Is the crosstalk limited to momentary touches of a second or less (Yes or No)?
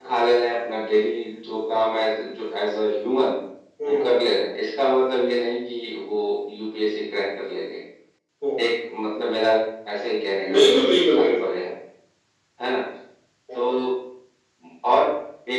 Yes